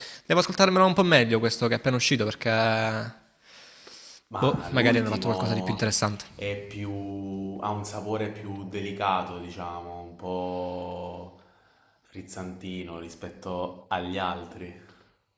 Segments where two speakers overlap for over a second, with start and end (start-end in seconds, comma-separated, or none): 4.4-5.9